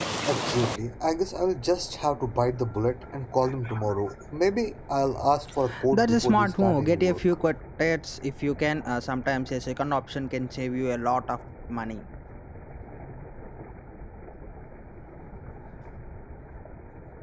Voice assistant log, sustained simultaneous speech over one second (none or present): present